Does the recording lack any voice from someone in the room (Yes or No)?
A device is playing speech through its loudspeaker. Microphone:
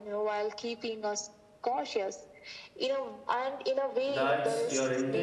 No